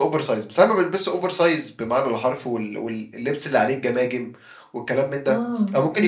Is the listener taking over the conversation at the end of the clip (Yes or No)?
No